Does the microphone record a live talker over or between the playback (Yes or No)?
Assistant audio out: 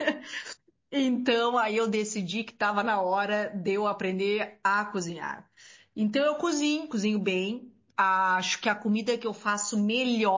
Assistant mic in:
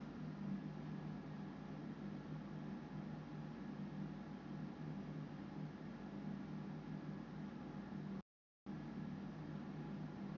No